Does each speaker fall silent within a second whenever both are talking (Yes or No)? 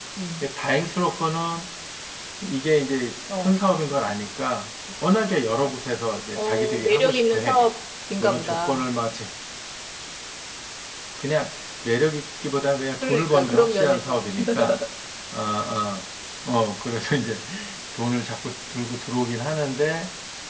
No